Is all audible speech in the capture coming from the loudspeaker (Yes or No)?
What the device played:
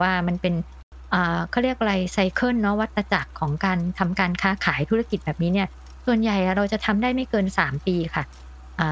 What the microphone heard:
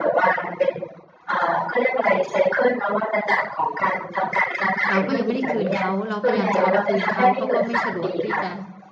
No